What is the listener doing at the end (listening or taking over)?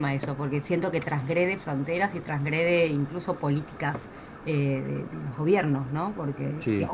listening